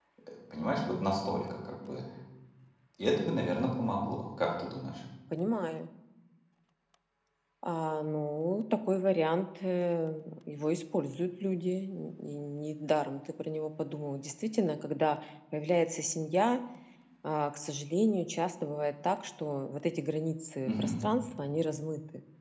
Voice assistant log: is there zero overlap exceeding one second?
Yes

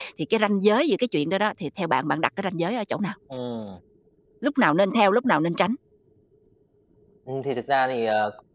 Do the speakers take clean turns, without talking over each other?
Yes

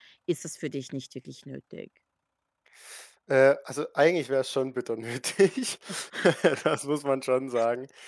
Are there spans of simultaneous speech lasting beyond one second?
No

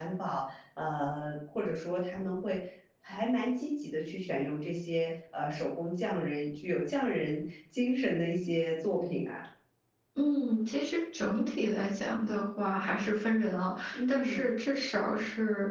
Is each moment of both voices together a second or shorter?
Yes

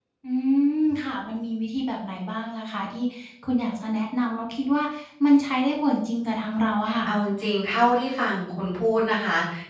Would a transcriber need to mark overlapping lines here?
No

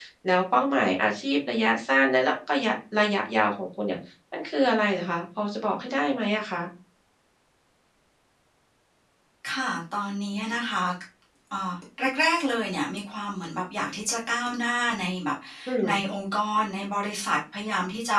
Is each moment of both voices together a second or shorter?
Yes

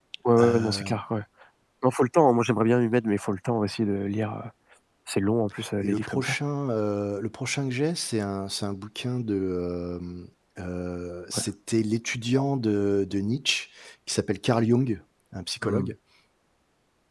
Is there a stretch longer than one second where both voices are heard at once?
No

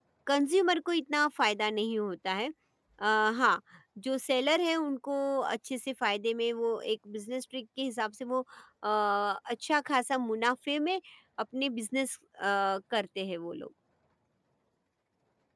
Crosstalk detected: No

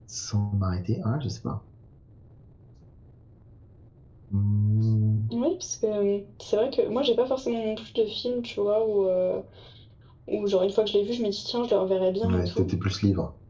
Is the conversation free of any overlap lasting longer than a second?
Yes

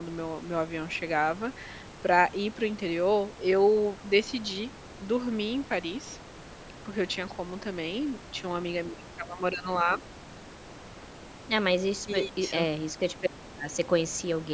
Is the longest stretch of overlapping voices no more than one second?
Yes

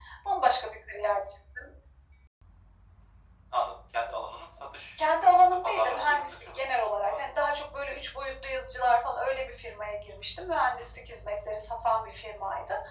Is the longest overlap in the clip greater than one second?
Yes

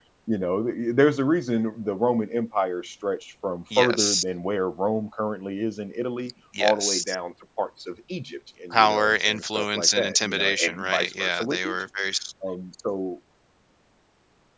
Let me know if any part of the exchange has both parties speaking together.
Yes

